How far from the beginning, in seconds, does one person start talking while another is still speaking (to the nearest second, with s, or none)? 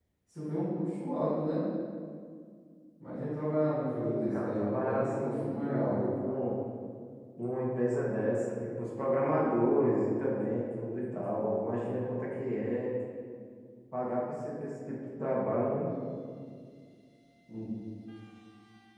4 s